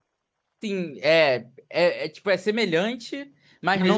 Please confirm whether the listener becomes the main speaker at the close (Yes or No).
No